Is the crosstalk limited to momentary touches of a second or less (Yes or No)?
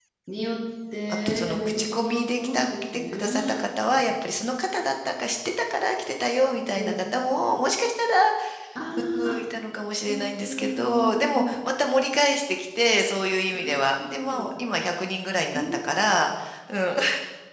No